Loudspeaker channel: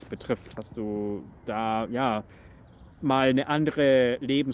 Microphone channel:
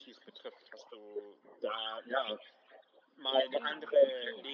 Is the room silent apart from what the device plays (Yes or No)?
No